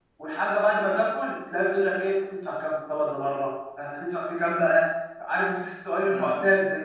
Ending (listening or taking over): taking over